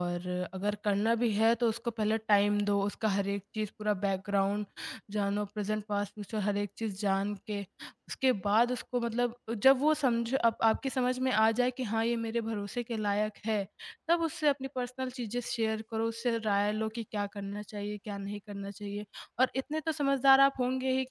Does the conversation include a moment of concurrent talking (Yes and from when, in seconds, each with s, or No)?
No